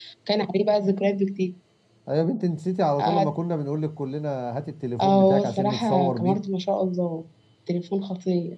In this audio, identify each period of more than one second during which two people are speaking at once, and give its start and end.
5.0-6.4

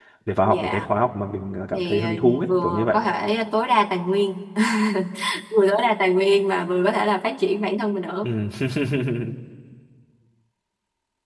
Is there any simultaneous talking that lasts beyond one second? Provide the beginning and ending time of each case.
1.7-3.0

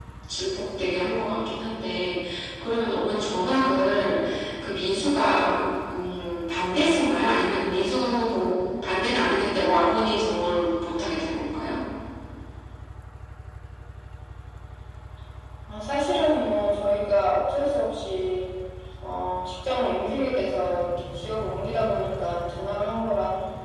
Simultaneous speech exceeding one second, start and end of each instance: none

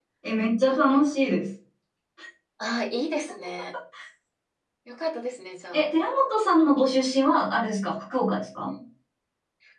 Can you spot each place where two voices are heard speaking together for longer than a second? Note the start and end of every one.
none

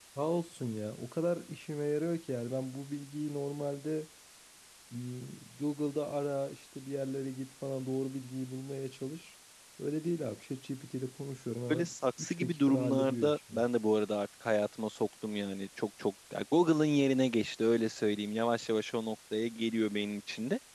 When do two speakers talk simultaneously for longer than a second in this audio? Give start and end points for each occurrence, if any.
11.7-13.6

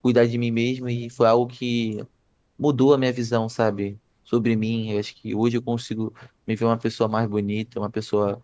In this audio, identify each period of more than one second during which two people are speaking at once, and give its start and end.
none

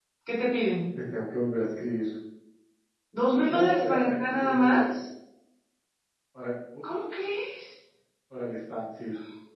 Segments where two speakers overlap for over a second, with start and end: 3.5-4.9

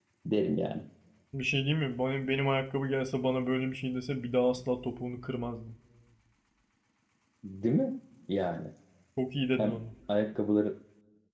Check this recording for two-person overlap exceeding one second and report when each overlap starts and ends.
none

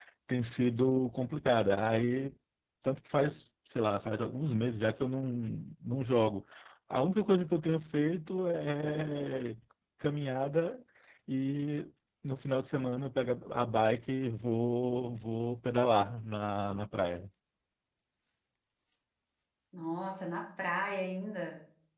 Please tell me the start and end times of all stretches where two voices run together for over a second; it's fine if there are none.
none

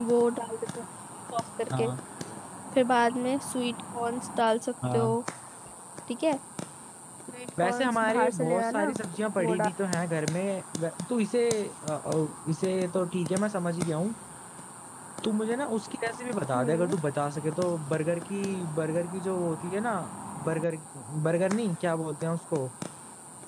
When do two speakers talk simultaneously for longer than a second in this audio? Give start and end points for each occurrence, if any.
7.6-8.9

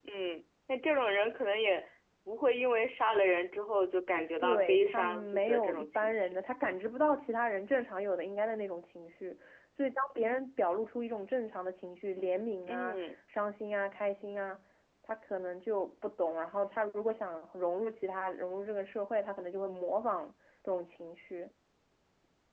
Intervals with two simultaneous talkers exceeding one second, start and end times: 4.4-6.3

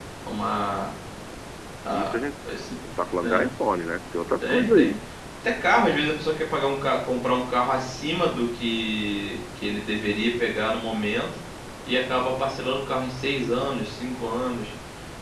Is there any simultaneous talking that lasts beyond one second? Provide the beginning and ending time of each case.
none

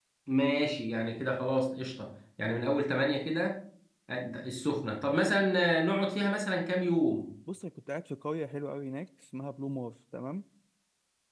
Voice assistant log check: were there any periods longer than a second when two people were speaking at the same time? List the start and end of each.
none

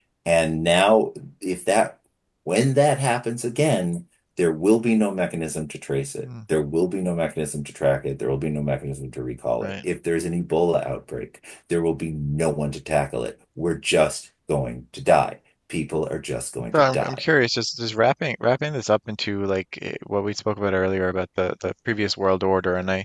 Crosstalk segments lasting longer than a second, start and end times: none

